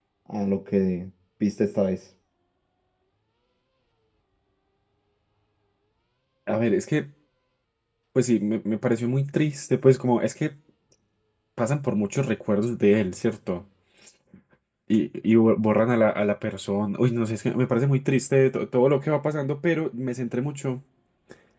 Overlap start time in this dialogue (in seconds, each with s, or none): none